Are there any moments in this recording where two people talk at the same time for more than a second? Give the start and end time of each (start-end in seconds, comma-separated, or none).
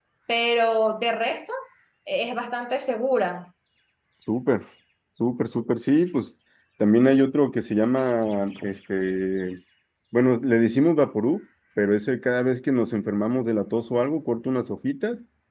none